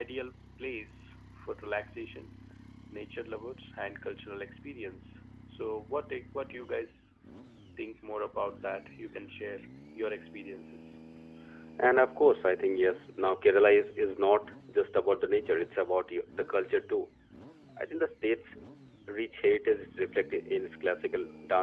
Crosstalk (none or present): none